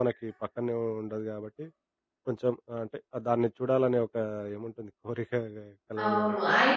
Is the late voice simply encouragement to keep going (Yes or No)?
No